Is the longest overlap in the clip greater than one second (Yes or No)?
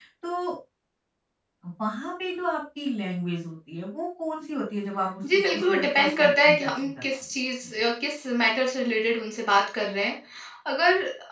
Yes